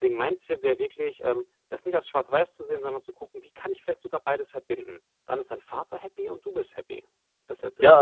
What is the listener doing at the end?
taking over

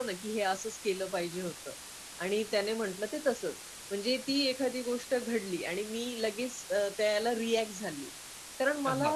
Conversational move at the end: listening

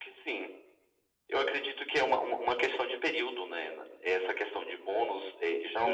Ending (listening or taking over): taking over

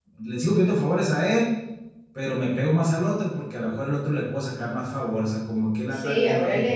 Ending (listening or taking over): taking over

